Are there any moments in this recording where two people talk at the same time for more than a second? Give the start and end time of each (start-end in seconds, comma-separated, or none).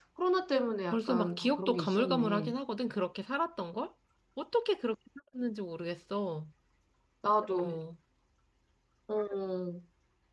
0.9-2.5